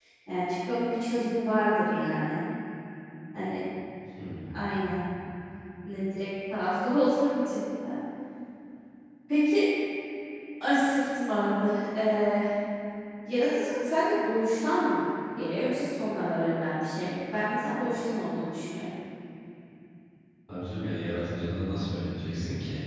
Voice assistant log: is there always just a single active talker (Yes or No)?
Yes